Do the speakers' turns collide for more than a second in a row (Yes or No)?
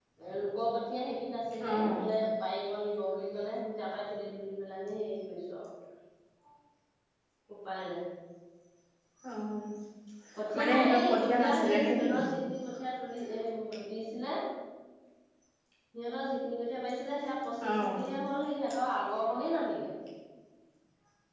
Yes